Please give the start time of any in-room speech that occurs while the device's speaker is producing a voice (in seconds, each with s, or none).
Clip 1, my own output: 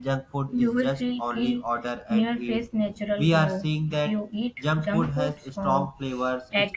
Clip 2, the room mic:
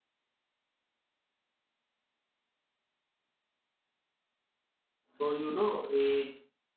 5.2 s